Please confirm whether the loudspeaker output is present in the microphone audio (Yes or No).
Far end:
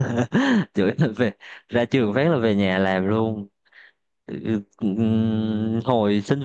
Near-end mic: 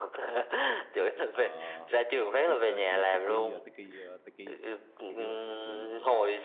Yes